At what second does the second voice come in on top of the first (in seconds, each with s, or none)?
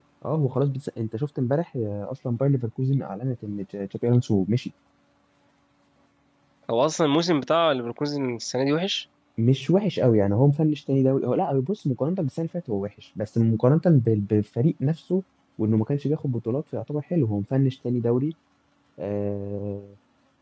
none